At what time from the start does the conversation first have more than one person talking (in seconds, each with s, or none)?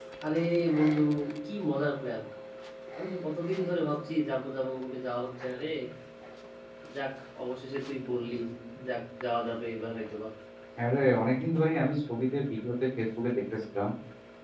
none